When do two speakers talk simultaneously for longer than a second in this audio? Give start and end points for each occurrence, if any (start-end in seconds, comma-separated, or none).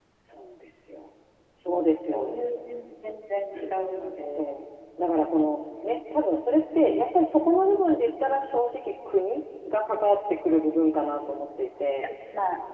none